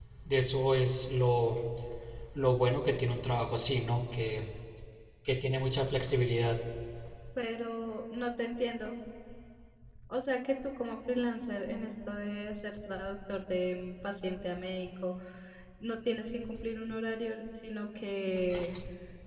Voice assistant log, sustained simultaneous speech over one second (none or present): none